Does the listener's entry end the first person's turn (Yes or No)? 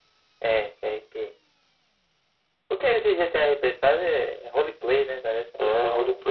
Yes